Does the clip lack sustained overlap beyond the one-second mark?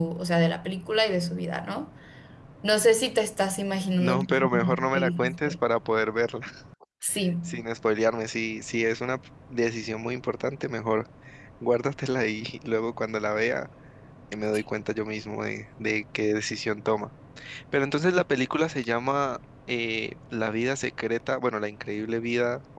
No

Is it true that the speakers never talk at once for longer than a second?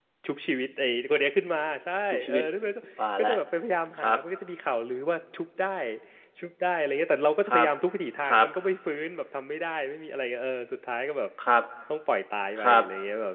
Yes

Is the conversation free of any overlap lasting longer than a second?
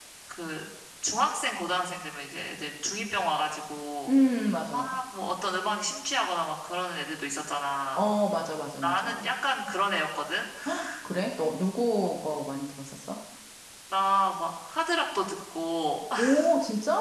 Yes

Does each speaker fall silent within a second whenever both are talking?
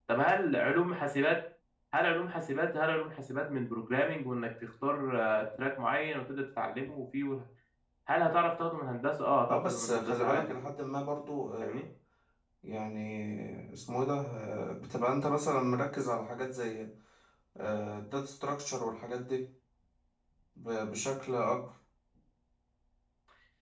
No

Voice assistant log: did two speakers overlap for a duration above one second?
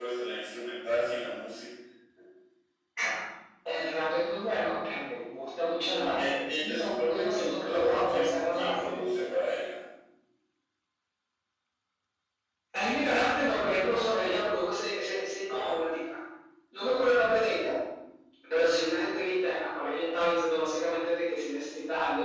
Yes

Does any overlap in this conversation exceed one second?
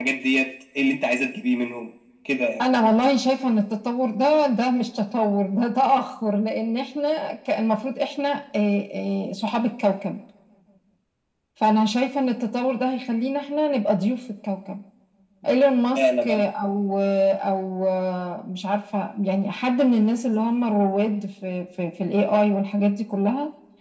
No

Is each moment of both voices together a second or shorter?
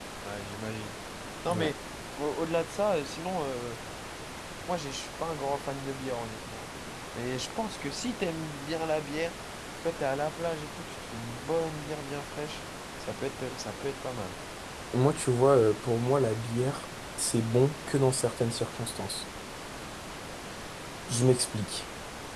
Yes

